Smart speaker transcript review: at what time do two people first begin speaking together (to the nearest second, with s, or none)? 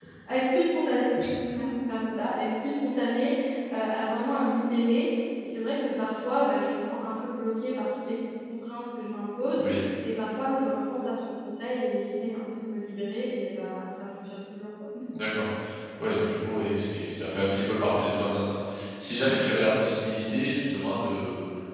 none